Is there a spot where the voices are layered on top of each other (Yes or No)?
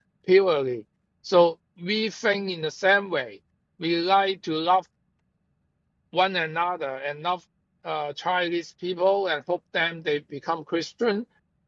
No